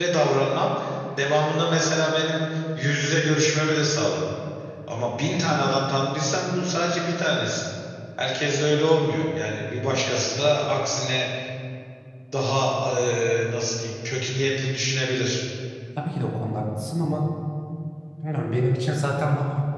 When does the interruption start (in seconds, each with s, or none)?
none